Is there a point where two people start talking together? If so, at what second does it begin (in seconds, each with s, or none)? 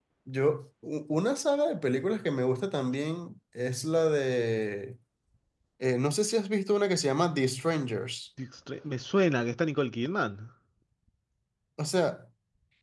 none